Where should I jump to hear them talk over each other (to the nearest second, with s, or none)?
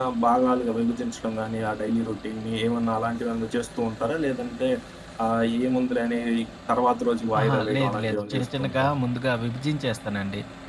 7 s